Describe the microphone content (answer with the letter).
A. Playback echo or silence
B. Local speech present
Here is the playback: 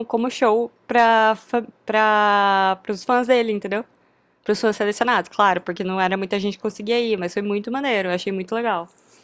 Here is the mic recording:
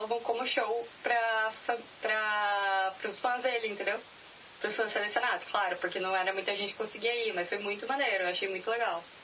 A